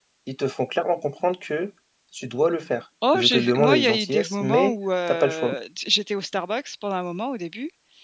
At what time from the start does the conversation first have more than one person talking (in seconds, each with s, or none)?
3.0 s